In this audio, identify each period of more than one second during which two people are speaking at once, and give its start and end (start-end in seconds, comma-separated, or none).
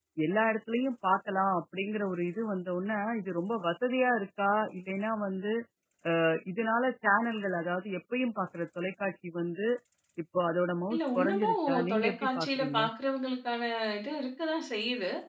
10.9-12.8